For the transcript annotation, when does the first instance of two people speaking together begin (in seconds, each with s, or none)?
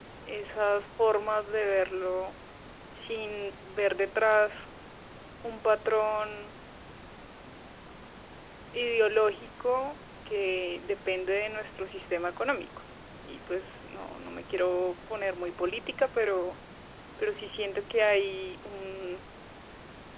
none